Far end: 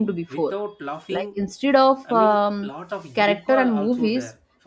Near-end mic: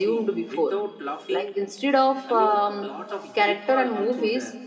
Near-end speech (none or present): none